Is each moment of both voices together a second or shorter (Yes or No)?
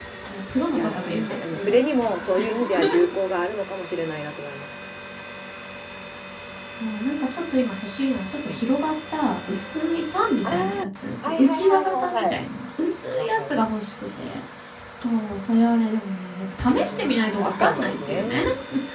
No